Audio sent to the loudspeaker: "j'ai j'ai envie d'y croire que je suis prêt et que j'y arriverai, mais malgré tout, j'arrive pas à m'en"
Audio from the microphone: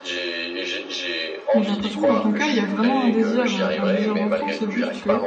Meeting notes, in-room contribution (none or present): present